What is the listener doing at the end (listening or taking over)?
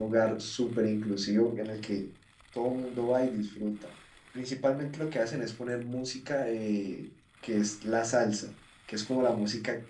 listening